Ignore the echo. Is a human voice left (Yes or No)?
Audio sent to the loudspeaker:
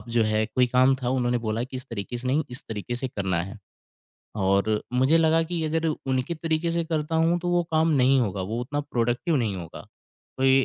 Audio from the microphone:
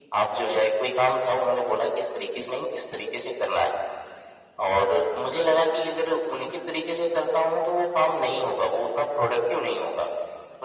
No